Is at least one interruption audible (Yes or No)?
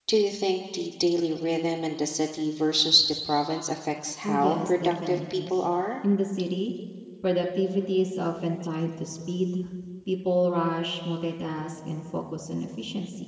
Yes